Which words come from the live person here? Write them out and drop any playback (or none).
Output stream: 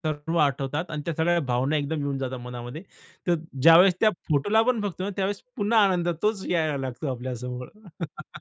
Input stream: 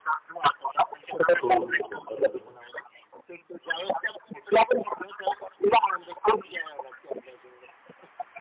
खूप! बरोबर आहे.